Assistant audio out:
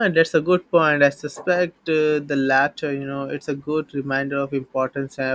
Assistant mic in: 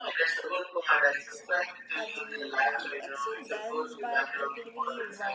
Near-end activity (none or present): present